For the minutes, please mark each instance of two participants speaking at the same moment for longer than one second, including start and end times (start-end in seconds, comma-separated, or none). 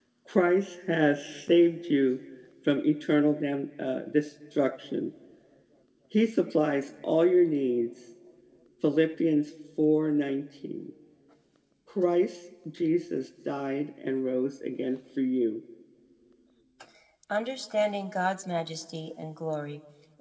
none